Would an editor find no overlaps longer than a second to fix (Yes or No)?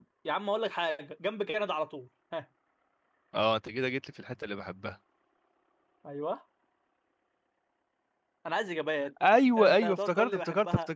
No